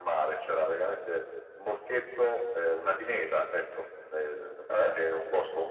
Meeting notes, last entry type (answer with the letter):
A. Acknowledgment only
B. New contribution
A